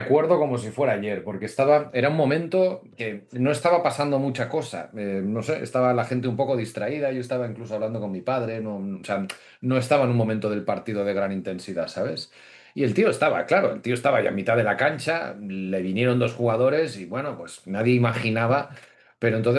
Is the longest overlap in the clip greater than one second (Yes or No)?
No